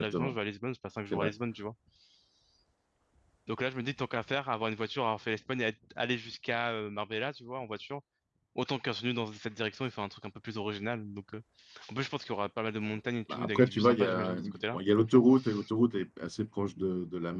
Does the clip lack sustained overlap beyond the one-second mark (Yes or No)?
No